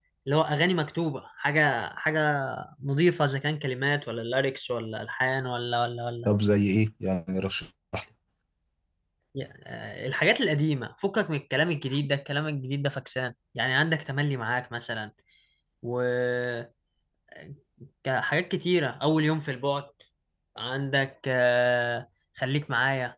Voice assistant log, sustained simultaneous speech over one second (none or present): none